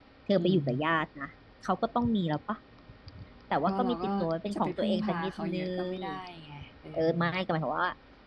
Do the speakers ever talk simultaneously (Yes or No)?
Yes